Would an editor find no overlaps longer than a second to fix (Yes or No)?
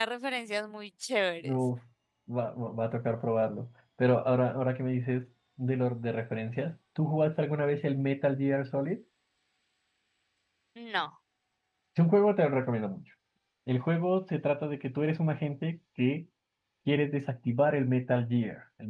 Yes